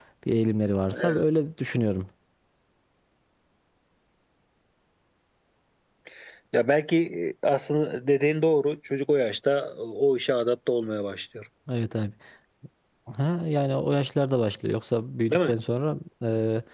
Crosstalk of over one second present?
No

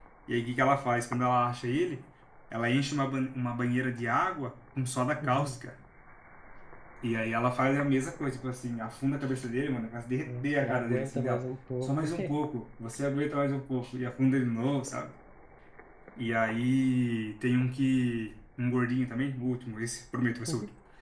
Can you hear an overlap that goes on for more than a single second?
Yes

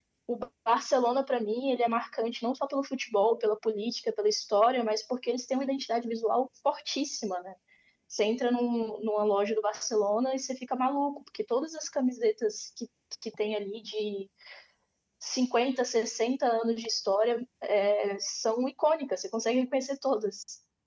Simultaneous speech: No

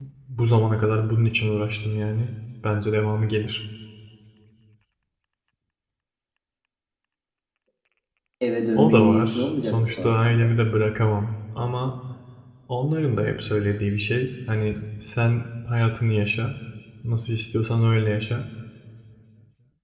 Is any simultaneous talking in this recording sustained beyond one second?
Yes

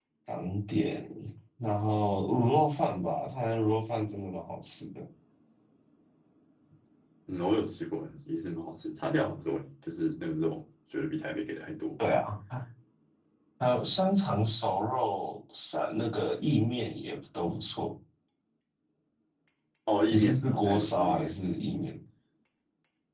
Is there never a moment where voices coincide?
No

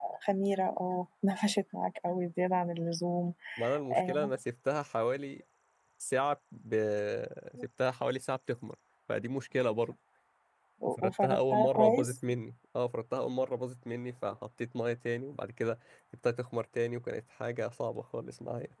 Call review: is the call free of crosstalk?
No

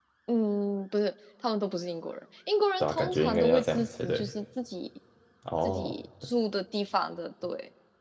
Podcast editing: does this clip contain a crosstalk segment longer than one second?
Yes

